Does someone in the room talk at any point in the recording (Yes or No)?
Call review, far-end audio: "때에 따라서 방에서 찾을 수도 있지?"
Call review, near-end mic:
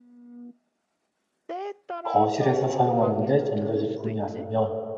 Yes